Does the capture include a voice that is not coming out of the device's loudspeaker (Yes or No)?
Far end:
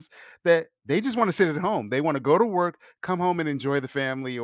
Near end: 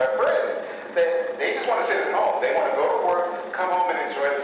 No